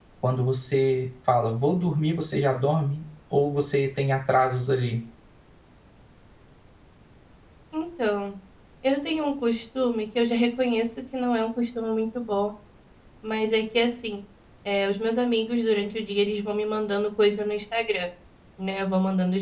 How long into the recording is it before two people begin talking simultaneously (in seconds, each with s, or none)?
none